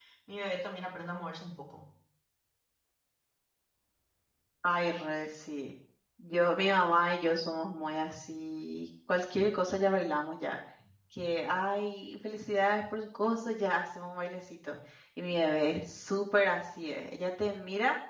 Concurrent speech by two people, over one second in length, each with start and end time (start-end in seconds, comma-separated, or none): none